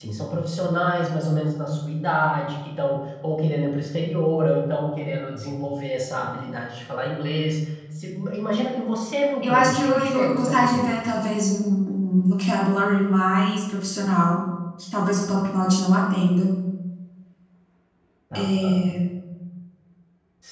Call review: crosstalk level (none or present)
present